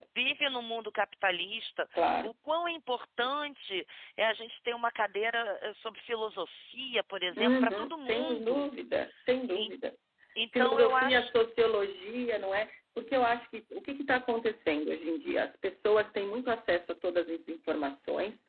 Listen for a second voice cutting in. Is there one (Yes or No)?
Yes